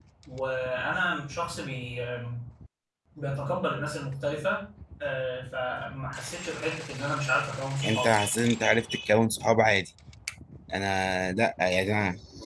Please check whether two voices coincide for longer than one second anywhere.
No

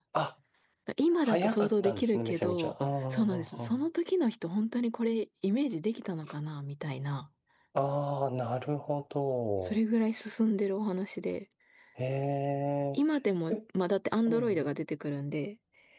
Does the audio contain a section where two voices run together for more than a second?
Yes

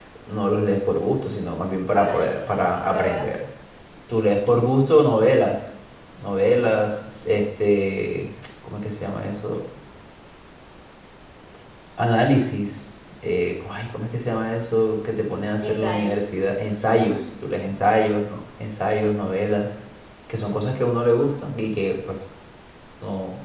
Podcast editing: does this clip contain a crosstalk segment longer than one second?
Yes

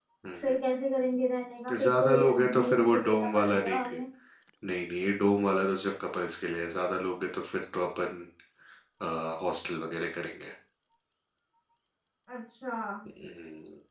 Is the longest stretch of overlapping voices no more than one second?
No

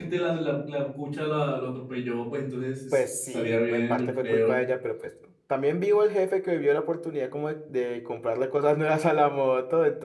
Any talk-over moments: Yes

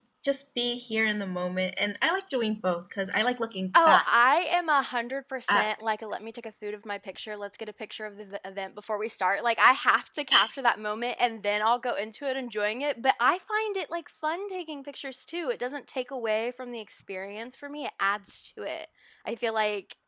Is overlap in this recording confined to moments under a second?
Yes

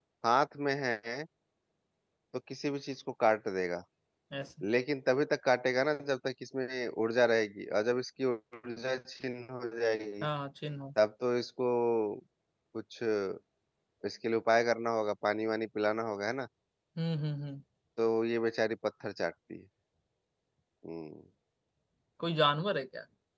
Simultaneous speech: No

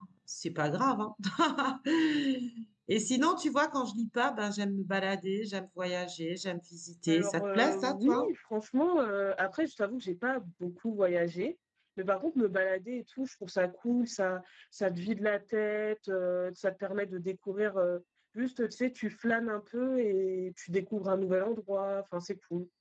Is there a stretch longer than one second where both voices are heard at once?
Yes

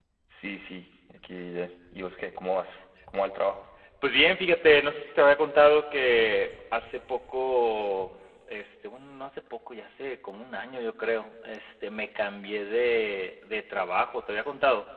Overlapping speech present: No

